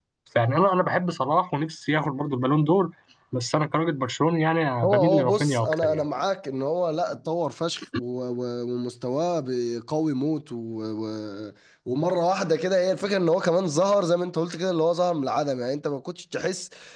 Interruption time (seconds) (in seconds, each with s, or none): 4.8 s